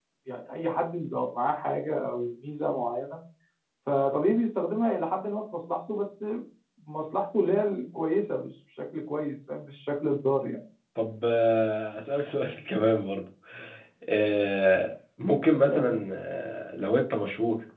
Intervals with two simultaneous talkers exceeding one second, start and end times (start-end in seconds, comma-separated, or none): none